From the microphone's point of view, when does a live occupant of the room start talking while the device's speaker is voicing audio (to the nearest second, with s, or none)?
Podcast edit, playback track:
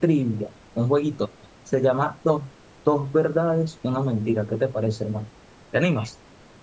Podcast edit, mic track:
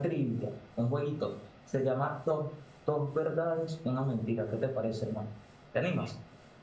none